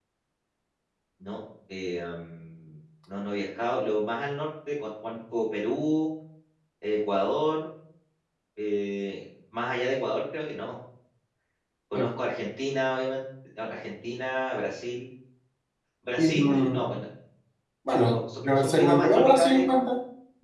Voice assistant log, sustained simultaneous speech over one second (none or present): present